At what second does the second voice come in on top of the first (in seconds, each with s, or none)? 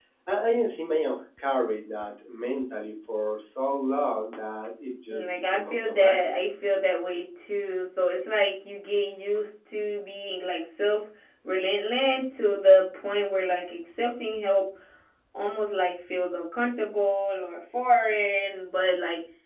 5.1 s